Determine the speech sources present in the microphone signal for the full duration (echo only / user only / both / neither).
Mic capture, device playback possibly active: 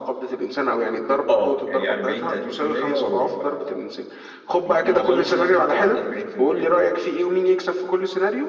echo only